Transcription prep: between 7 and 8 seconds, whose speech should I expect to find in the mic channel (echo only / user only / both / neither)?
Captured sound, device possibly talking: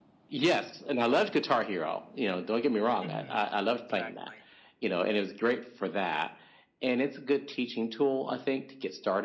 echo only